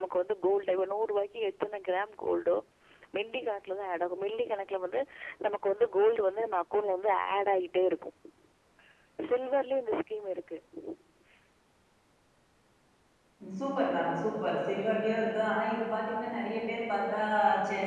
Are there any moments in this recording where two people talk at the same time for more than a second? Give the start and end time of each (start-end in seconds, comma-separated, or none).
none